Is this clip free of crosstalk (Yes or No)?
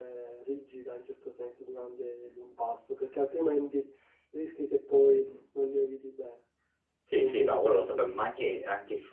No